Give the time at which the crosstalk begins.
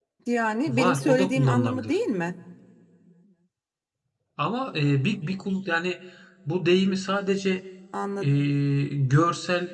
0.7 s

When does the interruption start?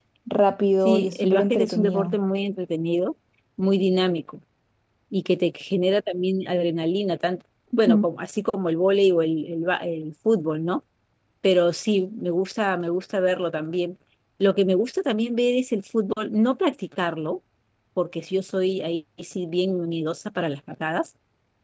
0.8 s

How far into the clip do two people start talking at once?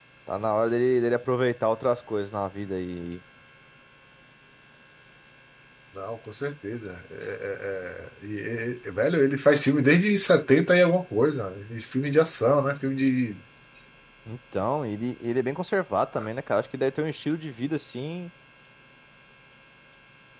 none

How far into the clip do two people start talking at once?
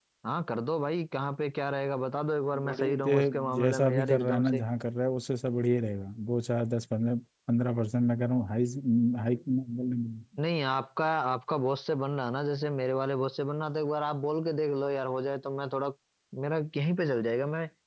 2.5 s

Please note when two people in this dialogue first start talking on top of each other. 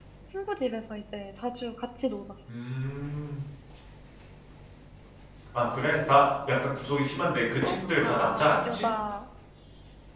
7.7 s

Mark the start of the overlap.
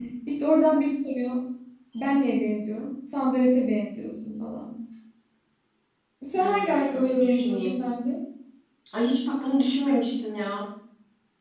6.4 s

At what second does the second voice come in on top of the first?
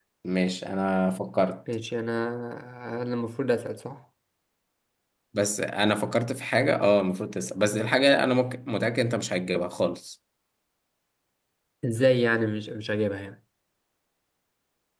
none

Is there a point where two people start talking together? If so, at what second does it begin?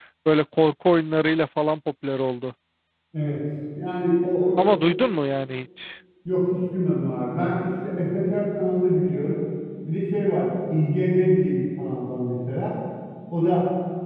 none

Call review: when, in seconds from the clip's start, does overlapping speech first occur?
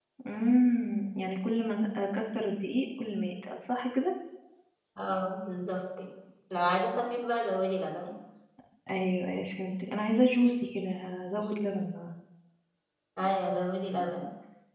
none

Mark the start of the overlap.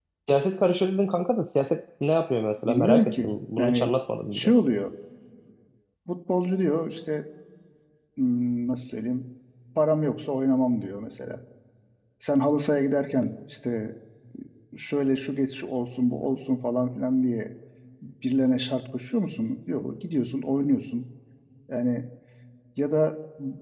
2.7 s

